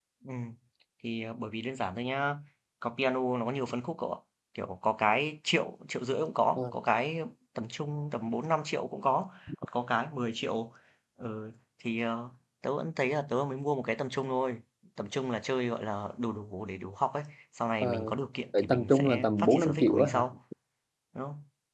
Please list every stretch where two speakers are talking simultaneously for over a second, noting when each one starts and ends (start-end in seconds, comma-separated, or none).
18.5-20.2